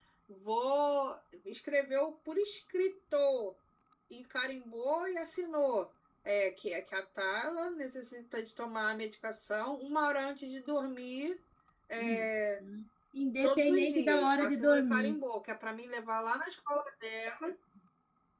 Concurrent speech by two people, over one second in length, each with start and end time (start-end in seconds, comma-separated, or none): 13.4-15.2